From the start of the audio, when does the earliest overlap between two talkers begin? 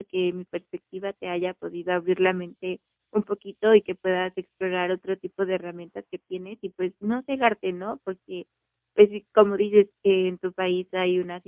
none

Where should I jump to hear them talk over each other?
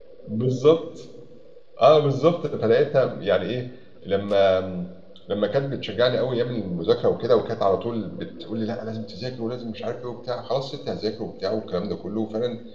none

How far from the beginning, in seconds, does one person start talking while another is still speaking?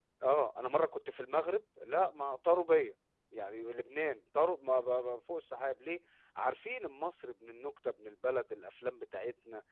none

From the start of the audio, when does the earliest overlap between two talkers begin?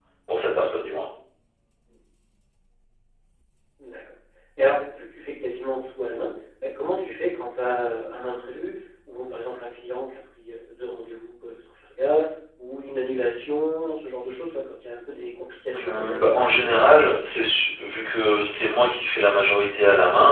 15.7 s

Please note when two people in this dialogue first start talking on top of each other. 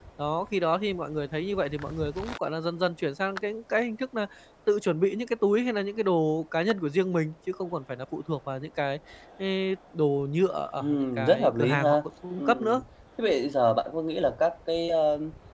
10.8 s

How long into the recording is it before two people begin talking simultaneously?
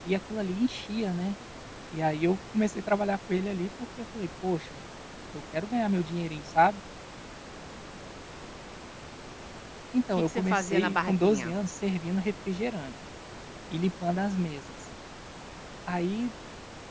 10.2 s

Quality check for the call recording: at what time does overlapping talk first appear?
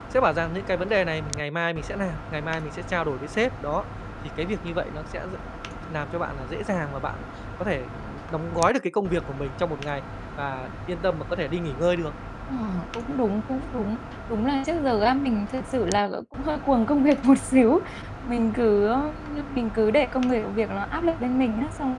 none

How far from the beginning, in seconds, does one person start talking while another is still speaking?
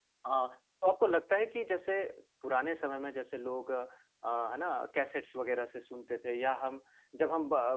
none

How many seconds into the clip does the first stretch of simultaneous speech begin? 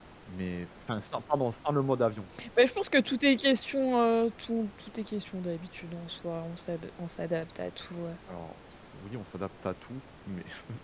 none

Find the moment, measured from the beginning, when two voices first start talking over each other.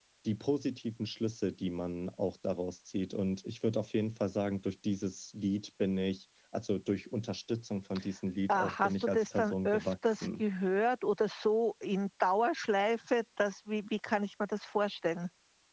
8.5 s

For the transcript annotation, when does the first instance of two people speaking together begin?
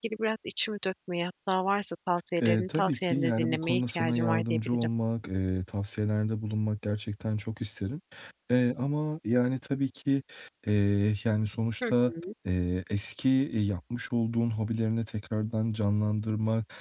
2.4 s

